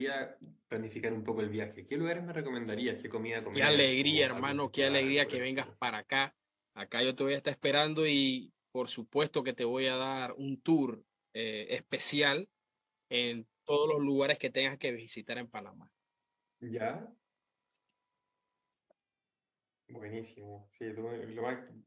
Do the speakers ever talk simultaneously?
Yes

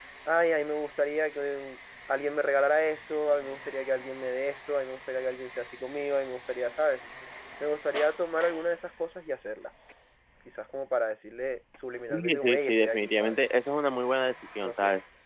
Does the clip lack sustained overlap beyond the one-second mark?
No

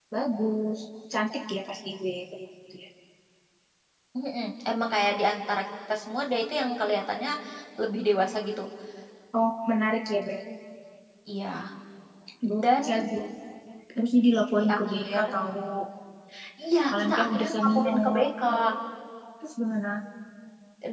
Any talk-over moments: Yes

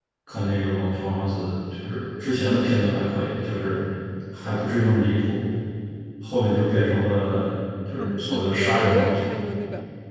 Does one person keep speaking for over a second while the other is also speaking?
Yes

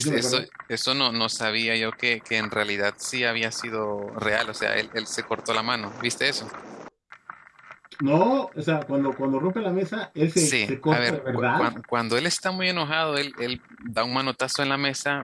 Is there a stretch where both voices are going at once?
Yes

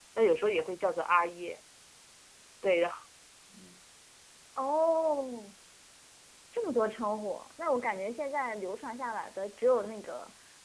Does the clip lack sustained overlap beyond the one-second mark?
Yes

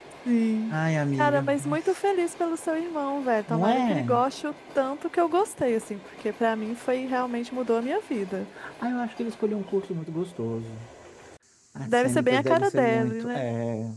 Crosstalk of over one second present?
Yes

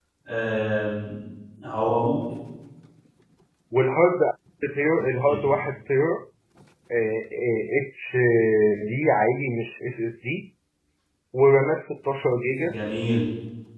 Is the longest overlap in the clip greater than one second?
No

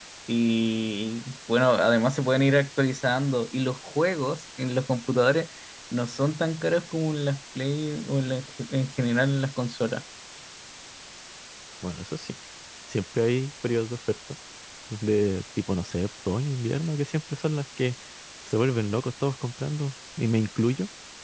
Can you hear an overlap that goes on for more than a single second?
No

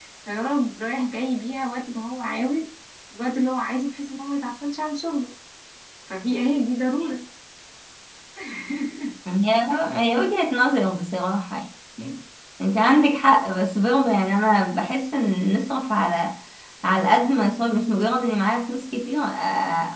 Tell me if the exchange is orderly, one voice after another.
Yes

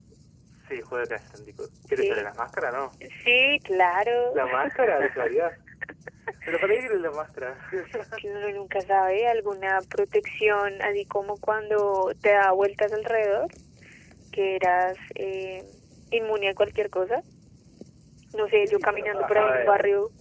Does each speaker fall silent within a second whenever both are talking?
No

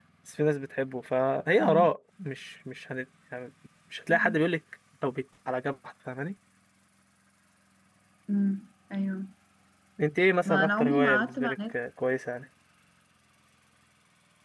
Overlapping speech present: Yes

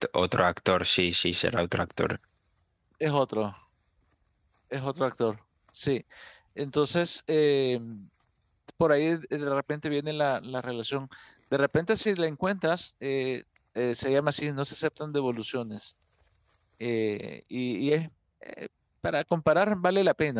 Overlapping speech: No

